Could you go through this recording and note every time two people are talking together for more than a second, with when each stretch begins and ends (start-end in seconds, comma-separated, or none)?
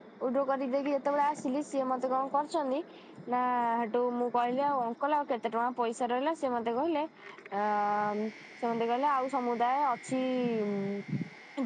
none